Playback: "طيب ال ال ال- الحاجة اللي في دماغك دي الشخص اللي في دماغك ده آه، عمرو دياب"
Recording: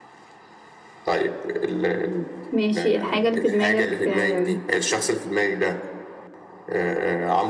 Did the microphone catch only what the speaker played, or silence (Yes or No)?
No